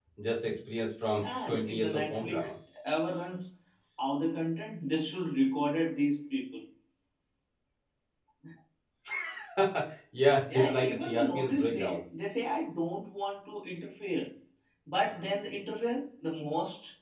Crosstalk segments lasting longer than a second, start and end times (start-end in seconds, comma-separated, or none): 1.2-2.5, 10.4-12.0